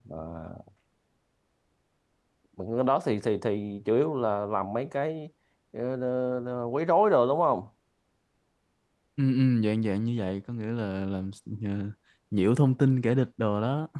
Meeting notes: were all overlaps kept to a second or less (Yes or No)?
Yes